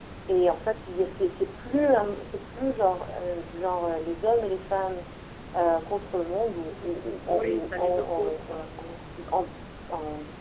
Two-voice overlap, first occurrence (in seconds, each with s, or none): 7.2 s